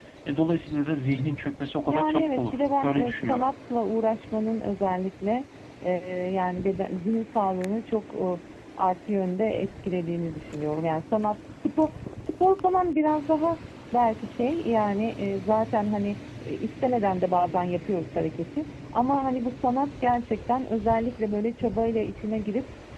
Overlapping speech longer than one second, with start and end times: 1.9-3.5

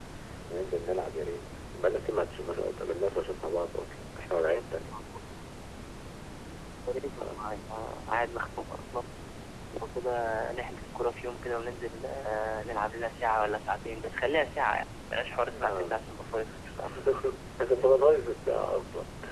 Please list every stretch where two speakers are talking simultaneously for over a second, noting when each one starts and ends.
none

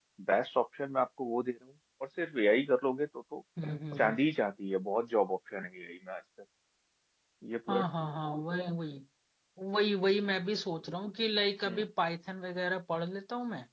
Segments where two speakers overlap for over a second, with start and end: none

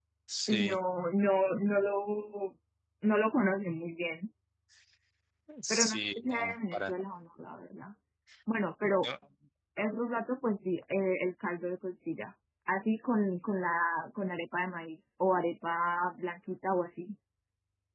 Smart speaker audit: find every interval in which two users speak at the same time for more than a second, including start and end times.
5.7-6.9

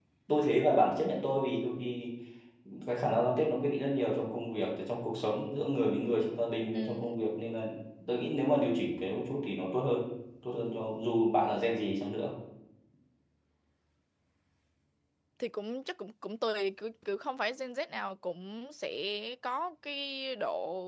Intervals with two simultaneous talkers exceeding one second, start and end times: none

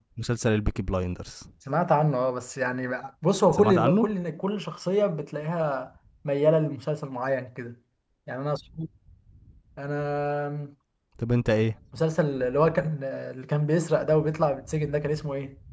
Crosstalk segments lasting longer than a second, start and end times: none

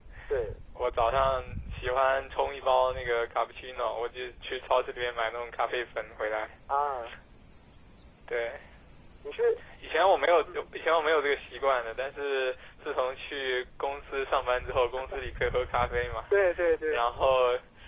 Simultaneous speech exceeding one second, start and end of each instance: none

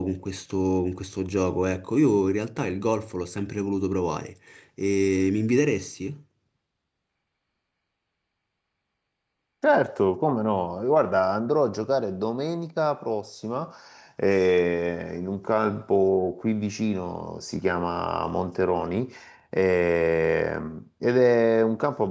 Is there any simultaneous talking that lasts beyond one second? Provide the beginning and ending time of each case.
none

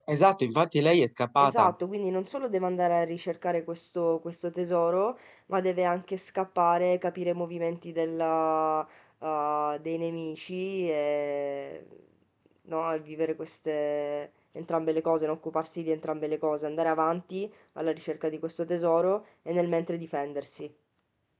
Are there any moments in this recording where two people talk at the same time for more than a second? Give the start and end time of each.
none

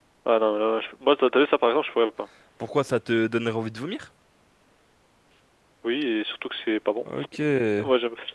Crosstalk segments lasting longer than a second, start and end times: none

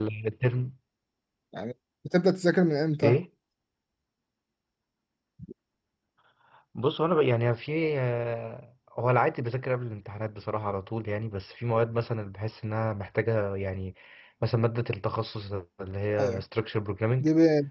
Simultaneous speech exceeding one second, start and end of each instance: none

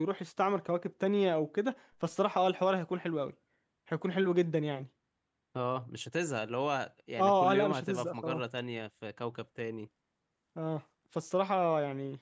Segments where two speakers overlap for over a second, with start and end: 7.2-8.4

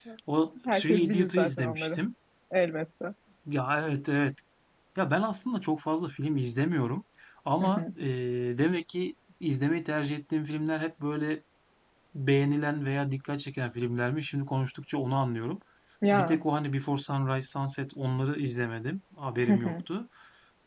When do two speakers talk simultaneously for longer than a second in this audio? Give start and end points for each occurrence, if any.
0.7-2.0

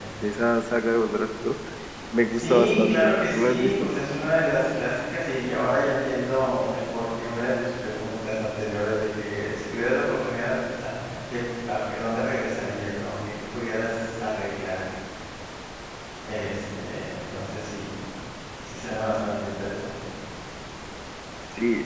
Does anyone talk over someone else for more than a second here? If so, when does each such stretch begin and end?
2.3-3.9

